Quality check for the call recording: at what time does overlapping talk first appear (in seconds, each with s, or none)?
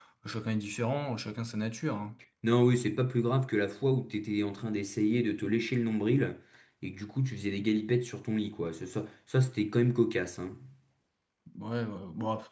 none